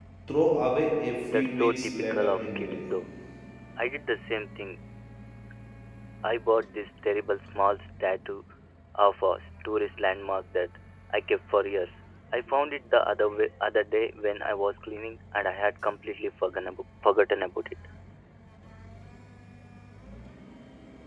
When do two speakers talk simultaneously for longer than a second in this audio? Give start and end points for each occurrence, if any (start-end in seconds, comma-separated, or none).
1.3-2.8